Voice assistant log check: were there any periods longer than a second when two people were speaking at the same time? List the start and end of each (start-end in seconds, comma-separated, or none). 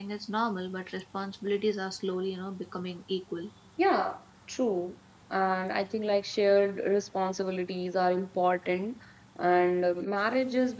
none